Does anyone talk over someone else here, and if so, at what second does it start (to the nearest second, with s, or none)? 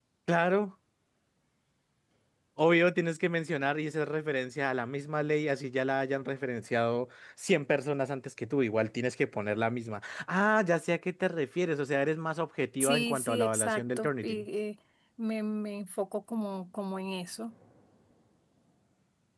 13 s